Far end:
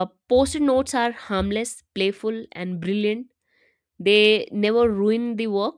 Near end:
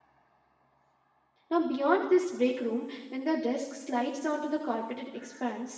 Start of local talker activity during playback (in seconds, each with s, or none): 1.5 s